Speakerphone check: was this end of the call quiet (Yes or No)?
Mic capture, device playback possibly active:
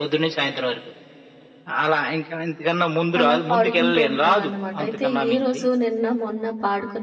No